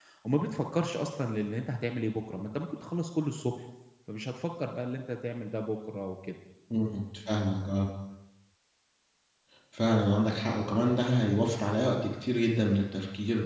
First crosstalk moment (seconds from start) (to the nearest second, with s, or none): none